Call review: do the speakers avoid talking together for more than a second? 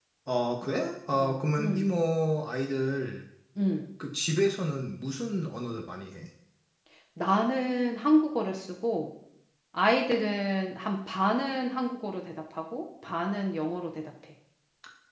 No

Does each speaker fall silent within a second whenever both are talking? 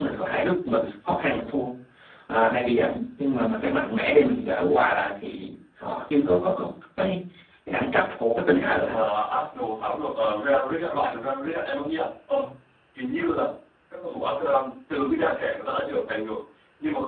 Yes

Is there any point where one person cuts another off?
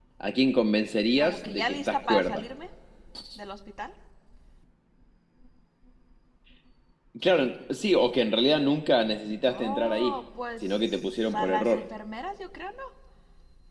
Yes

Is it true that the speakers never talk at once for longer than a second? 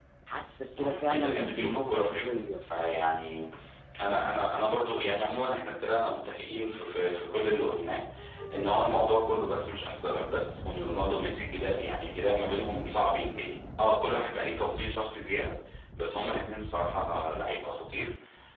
No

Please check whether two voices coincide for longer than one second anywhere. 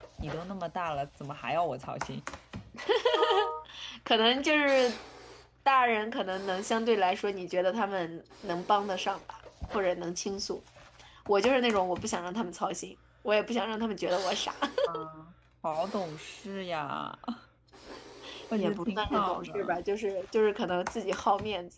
Yes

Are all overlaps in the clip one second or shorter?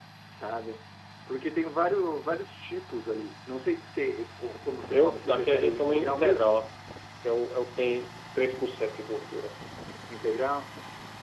No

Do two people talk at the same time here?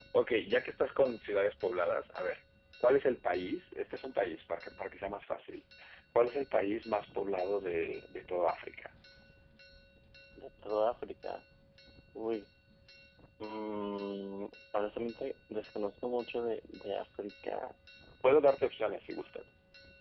No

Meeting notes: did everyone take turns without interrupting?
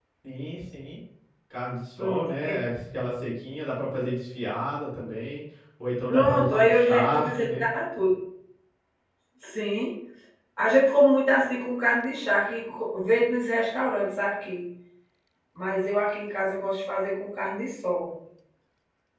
No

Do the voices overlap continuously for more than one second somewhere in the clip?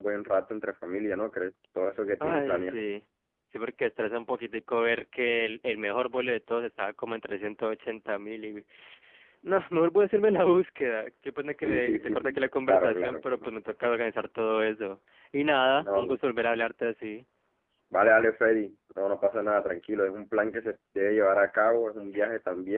Yes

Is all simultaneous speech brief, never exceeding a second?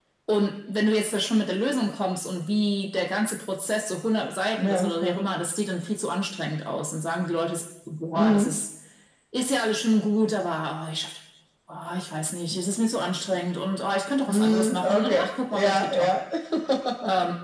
No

